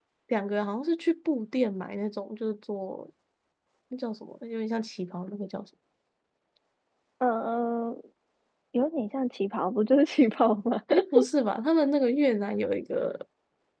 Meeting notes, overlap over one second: none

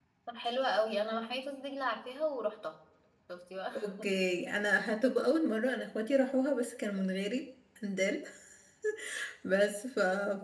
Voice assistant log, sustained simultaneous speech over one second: none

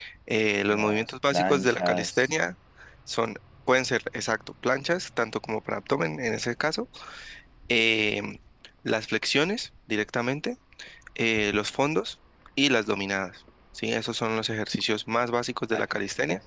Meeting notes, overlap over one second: present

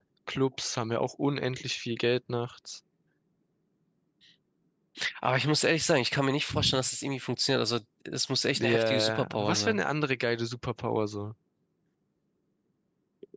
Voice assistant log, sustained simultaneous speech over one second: present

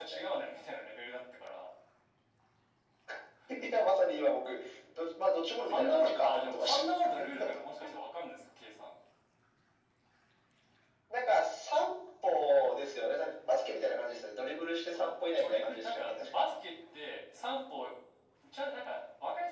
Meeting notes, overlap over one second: present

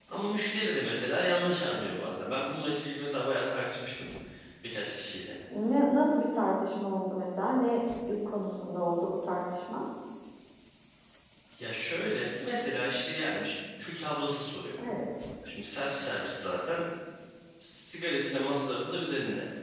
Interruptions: none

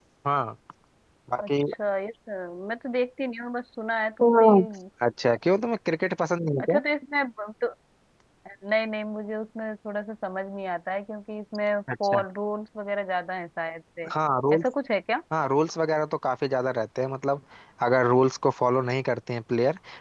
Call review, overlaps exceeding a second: none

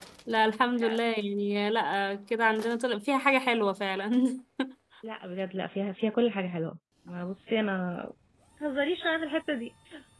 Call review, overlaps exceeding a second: none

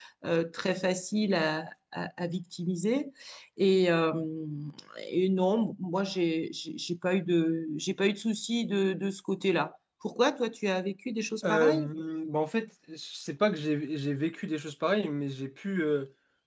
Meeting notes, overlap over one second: none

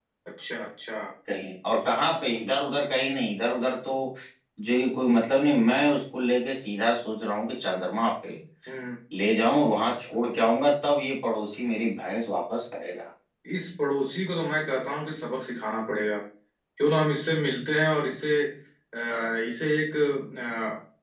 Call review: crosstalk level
none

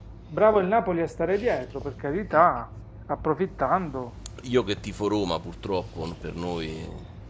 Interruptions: none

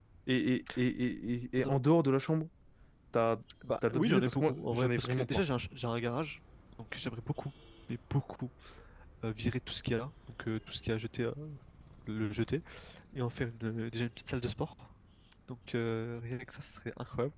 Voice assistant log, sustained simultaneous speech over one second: present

